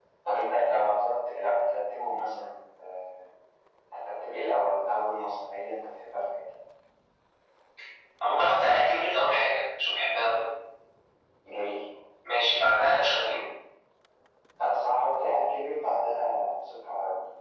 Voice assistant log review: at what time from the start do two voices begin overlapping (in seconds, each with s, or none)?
none